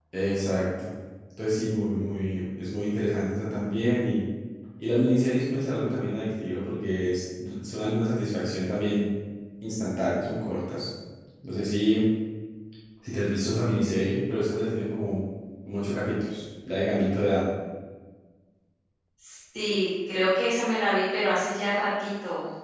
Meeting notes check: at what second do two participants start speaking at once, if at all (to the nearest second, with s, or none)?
none